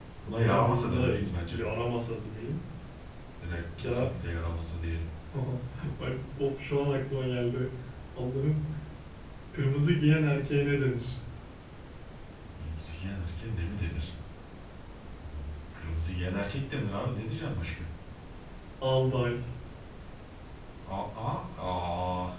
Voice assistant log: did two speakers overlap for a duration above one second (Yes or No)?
Yes